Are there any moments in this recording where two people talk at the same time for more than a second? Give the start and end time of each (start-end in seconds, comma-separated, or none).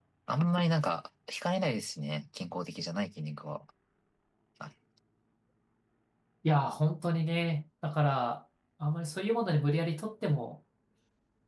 none